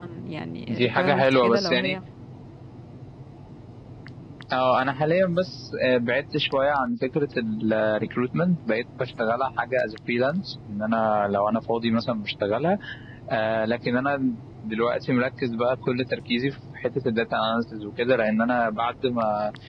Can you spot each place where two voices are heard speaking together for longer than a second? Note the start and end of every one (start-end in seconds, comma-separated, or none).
0.7-2.0